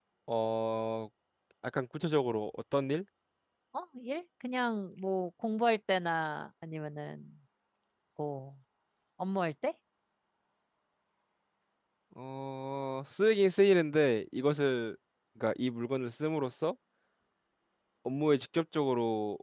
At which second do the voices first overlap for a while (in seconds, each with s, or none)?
none